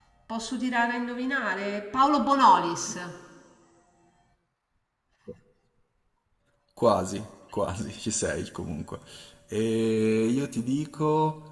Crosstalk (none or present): none